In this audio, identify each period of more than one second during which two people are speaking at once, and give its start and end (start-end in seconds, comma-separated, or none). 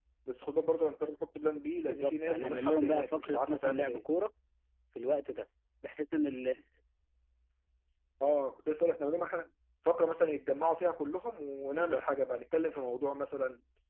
1.9-4.0